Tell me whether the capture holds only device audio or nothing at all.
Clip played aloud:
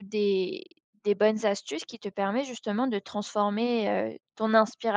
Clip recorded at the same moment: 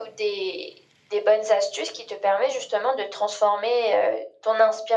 Yes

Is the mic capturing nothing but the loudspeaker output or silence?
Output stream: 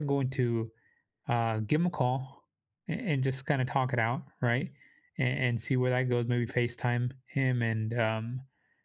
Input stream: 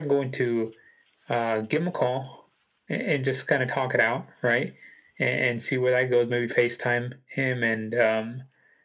Yes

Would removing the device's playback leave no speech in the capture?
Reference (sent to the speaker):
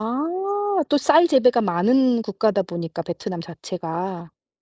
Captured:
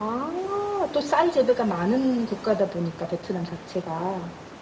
Yes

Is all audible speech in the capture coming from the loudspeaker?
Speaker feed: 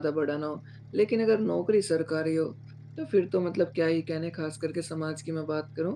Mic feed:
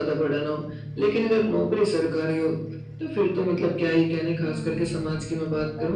No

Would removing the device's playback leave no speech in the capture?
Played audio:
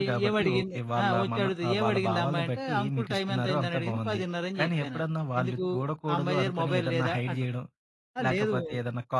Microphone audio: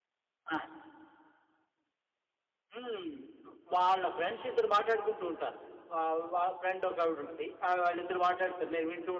No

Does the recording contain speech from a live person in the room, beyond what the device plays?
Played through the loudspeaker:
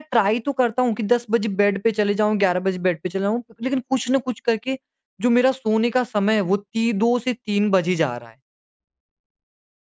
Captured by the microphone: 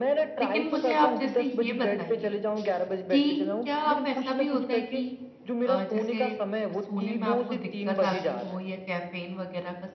Yes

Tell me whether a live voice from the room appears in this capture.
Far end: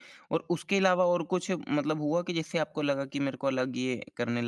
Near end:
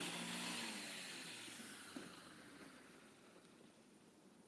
No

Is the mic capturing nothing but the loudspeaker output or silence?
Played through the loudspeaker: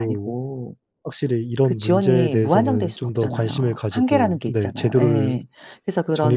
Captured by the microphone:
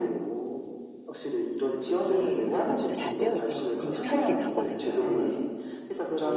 No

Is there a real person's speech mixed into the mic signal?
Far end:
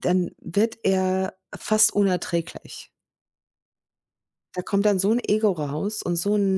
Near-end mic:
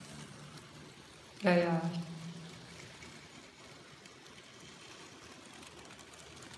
Yes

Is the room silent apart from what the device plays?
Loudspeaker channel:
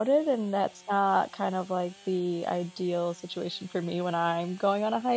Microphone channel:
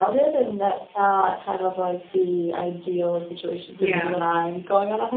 No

